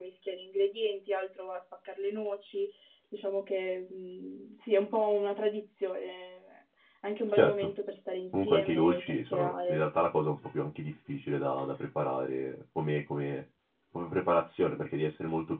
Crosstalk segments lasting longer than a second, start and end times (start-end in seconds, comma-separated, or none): 8.3-9.8